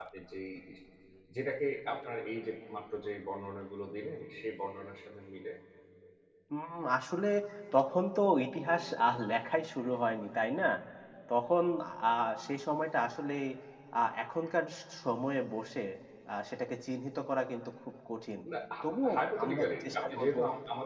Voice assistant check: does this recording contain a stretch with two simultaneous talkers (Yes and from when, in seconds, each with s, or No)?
Yes, from 18.8 s